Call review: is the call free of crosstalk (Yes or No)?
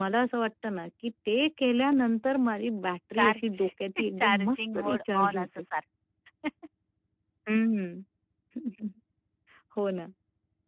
No